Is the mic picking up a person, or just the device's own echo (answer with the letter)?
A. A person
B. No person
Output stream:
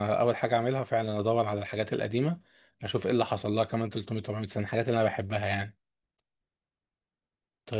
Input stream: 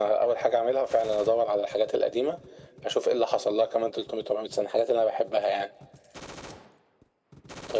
B